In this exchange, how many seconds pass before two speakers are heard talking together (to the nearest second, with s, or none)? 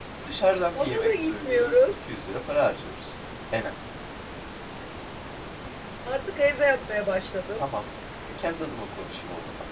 1 s